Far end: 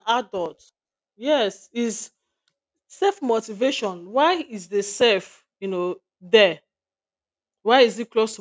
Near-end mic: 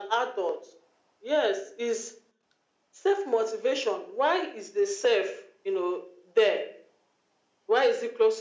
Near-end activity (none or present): none